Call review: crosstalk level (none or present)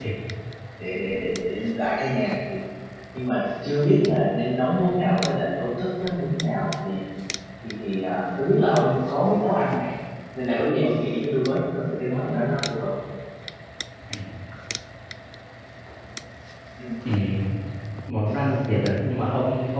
none